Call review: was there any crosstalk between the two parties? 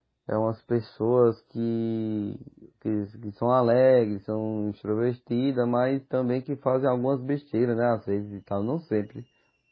No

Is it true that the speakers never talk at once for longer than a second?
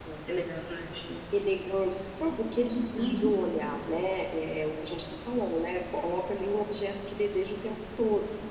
Yes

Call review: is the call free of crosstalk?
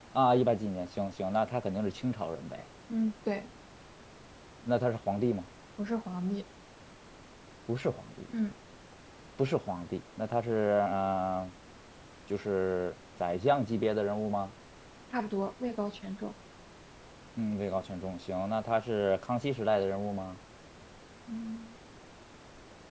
Yes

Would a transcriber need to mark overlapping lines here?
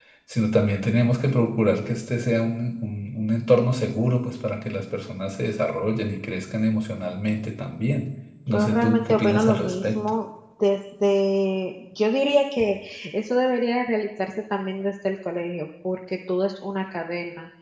Yes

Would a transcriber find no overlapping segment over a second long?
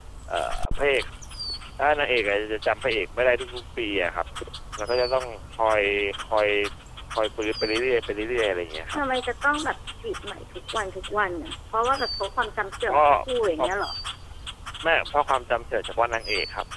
Yes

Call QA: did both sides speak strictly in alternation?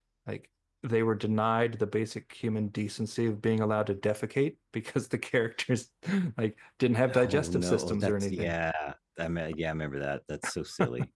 No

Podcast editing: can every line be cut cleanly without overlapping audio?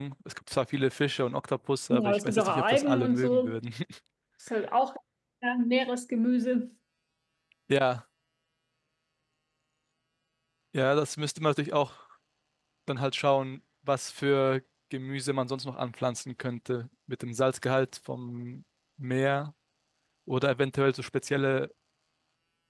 No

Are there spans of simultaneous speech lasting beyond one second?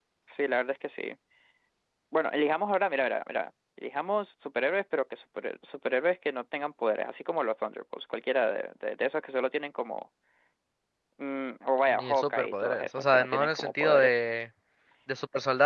Yes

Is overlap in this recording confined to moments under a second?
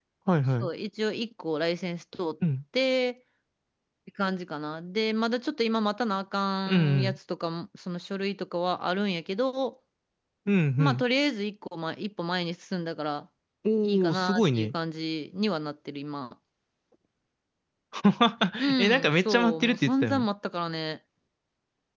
No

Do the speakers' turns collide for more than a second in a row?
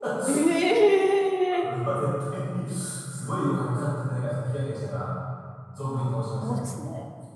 No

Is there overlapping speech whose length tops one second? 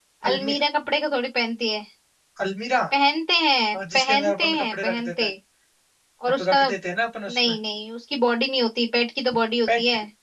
Yes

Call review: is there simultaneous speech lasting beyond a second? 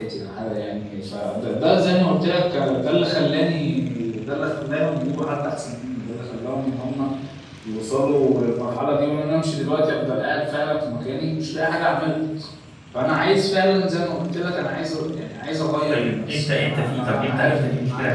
Yes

